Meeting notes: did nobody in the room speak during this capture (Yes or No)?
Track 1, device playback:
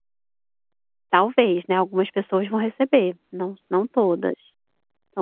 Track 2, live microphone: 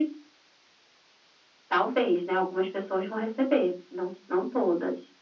Yes